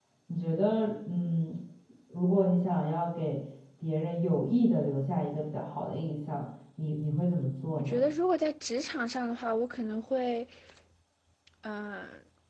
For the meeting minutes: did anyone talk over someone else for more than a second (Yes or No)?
No